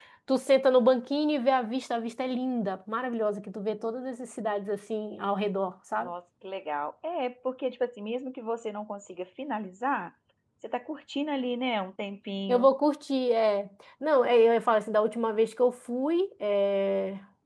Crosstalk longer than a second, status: none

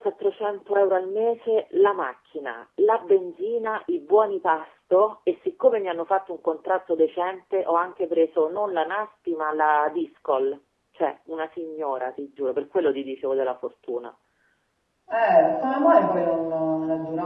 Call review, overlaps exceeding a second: none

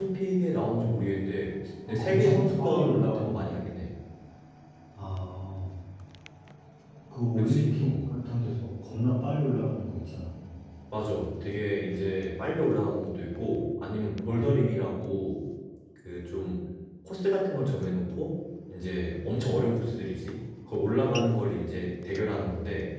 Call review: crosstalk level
present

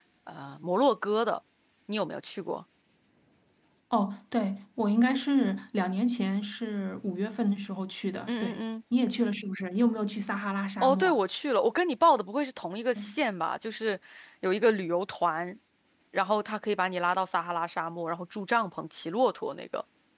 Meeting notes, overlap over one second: none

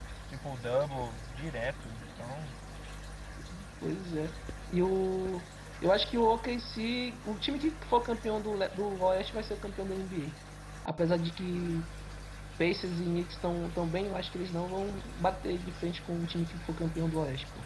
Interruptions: none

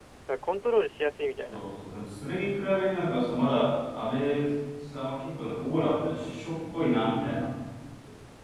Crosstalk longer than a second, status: none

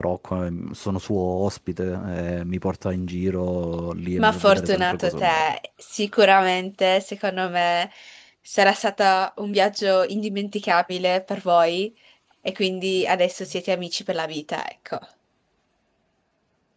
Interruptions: present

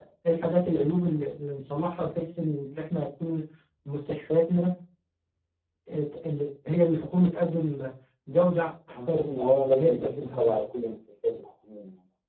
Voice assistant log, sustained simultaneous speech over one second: present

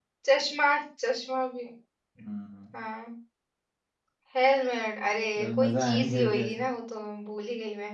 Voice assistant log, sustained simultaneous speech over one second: present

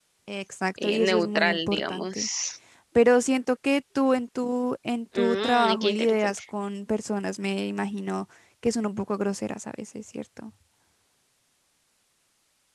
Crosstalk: present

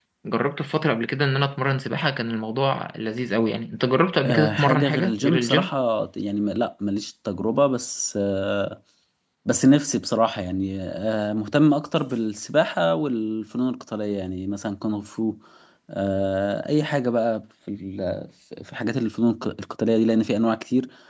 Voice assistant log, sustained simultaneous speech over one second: present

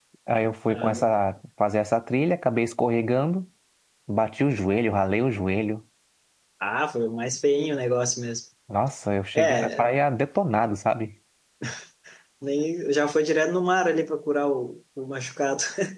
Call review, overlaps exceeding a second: none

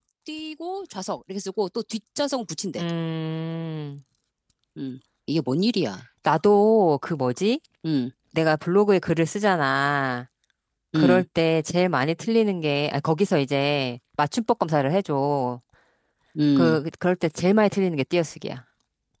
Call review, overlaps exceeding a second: none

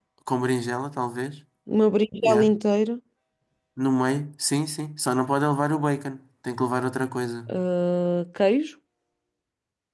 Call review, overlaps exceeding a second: none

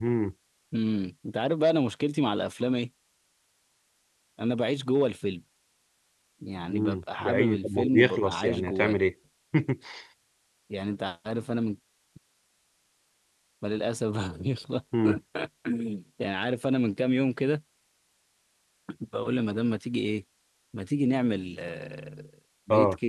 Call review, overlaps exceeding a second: present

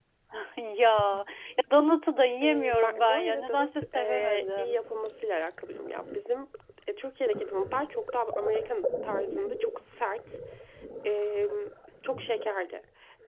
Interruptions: present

